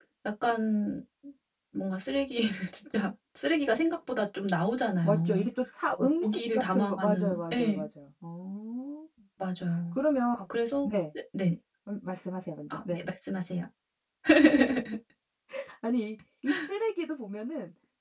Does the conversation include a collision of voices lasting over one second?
Yes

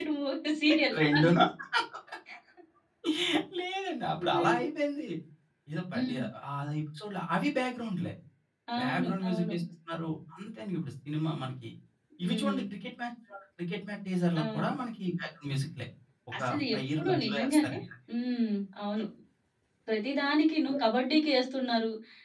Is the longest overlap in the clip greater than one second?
Yes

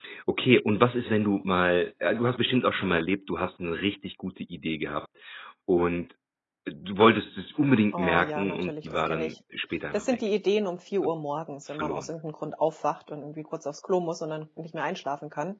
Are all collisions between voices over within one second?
No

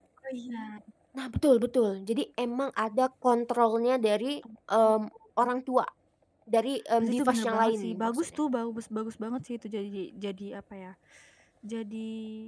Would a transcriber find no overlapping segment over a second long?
No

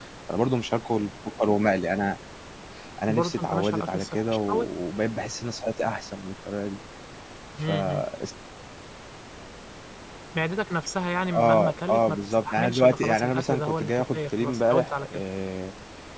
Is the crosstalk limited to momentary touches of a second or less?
No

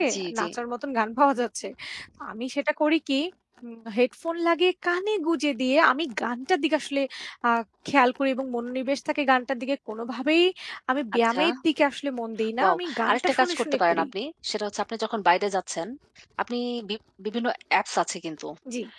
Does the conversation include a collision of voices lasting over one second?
Yes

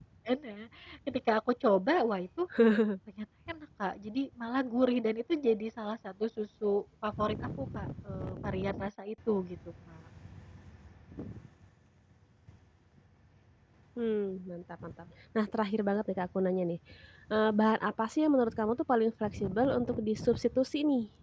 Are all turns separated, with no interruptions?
Yes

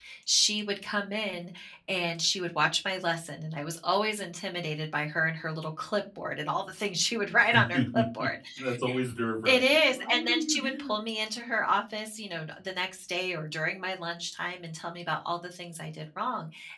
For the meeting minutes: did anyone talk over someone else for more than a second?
Yes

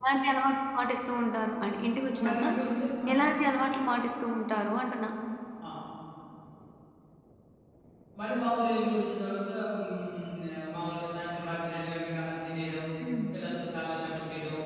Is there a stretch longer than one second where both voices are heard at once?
No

